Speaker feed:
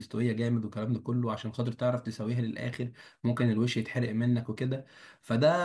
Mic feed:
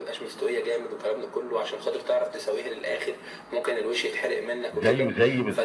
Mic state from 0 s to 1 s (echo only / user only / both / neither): echo only